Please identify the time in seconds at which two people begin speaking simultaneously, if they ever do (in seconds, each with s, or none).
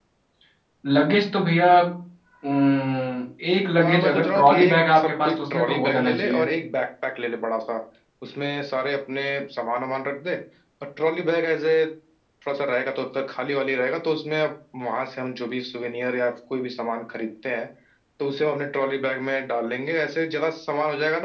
3.8 s